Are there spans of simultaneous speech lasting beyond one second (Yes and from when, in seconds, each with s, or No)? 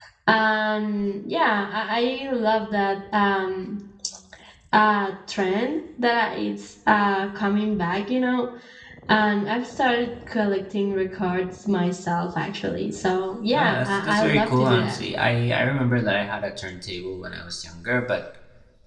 Yes, from 13.5 s